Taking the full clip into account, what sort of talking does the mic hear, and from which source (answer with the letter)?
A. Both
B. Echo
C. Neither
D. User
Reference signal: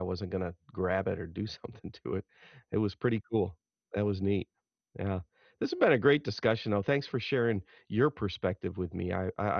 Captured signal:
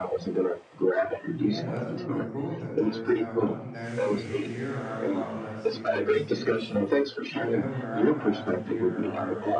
A